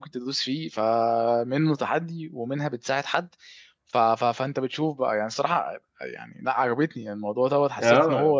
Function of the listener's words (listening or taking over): listening